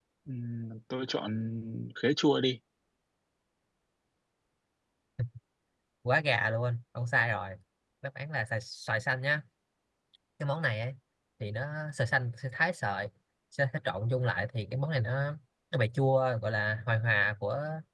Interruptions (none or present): none